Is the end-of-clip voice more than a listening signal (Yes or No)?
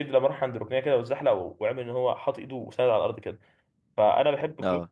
No